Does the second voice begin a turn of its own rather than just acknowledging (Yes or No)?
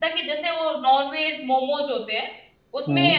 No